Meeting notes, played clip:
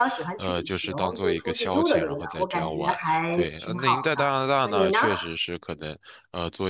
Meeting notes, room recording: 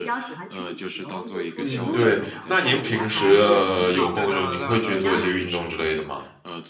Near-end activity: present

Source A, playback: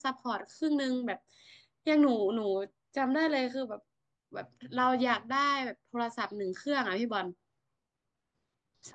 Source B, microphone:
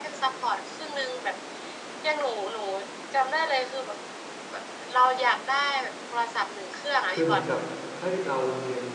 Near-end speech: present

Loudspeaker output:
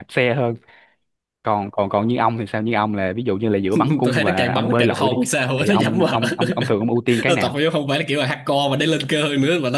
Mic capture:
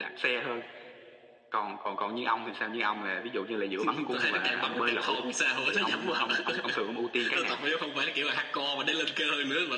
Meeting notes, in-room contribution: none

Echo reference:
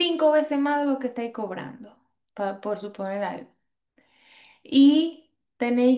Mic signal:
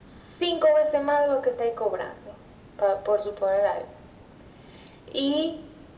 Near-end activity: none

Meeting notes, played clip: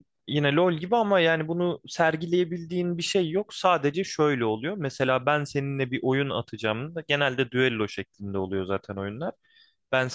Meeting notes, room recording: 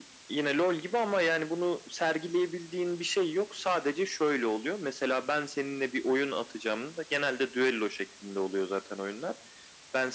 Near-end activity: none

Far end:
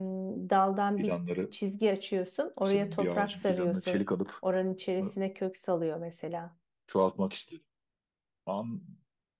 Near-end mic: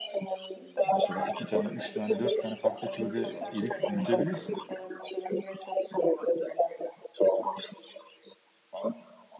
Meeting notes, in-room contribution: present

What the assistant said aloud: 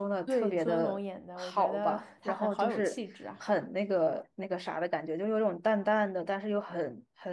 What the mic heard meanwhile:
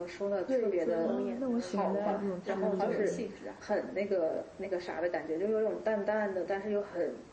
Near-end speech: present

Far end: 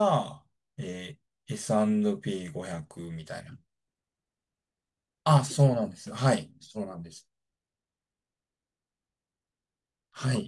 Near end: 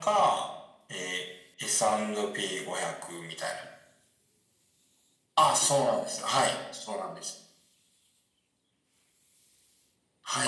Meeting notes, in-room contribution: none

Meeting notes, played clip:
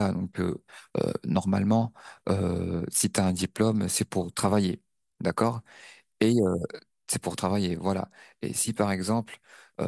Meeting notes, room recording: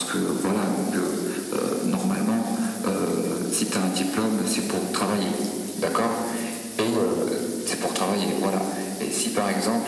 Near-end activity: none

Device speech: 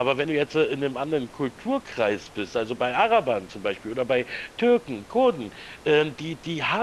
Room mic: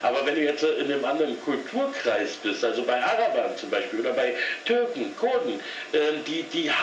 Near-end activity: none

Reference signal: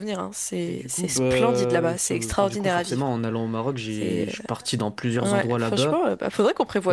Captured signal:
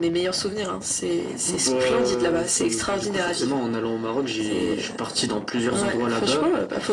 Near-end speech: none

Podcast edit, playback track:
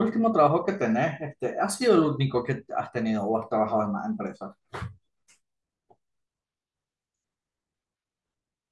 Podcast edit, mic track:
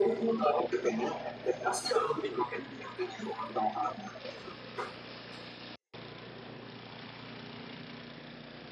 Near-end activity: none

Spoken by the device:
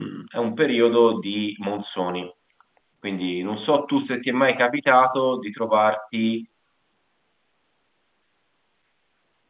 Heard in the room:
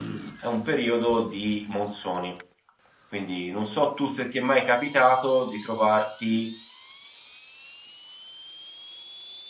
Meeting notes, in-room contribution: none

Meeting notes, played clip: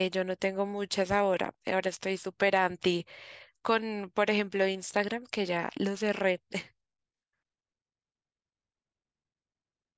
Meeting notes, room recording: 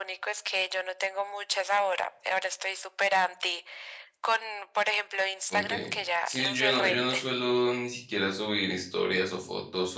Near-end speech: present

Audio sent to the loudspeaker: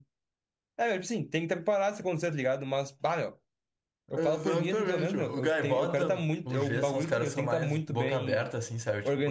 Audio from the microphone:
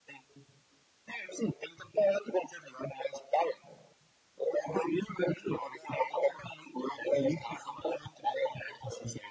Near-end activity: none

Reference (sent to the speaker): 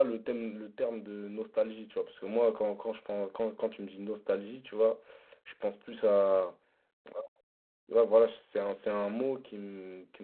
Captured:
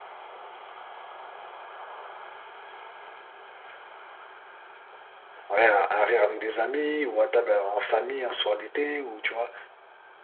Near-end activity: present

